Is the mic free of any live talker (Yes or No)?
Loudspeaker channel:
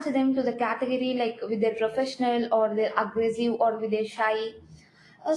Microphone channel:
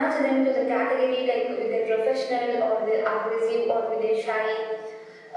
Yes